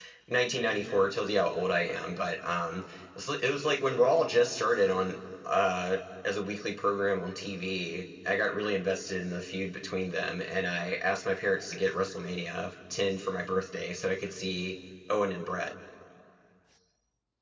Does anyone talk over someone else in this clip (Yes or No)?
No